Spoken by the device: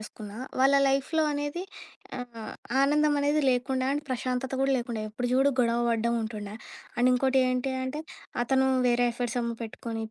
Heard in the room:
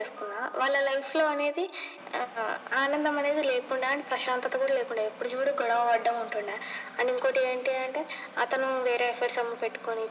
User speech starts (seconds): none

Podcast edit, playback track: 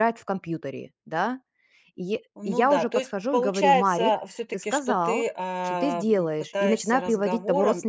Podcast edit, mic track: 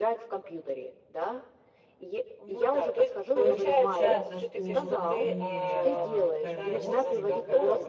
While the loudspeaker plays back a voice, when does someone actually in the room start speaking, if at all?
3.3 s

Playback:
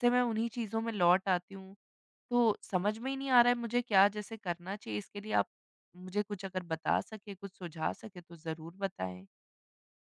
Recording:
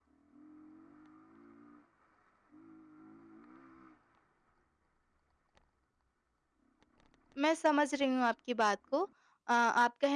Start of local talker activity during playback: 7.4 s

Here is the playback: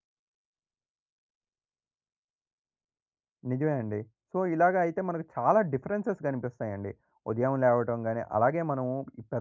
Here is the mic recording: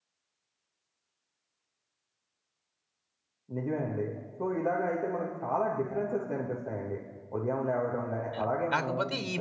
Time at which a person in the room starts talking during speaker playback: 8.3 s

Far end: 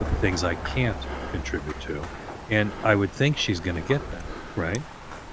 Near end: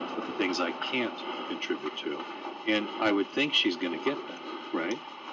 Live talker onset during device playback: none

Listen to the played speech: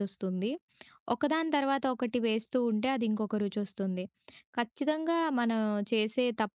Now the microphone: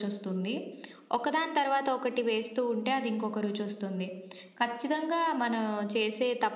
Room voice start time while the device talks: none

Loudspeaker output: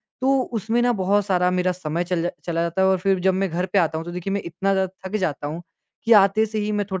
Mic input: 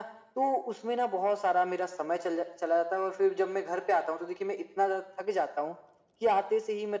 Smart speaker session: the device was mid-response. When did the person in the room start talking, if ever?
none

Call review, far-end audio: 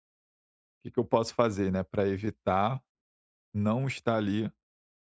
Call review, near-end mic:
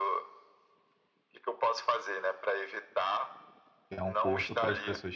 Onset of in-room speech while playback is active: 3.9 s

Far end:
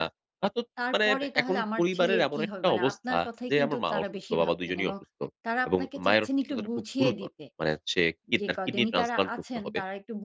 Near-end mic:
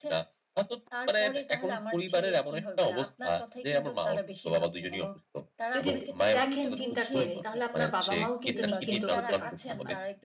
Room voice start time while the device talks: 5.8 s

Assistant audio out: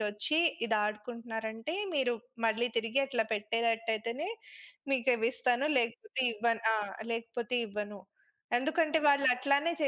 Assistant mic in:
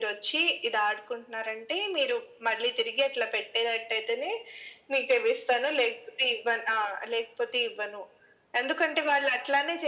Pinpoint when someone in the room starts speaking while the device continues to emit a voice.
none

